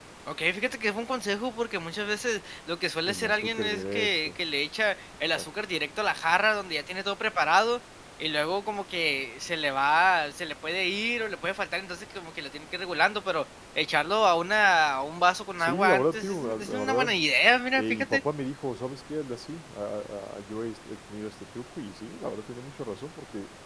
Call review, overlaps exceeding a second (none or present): present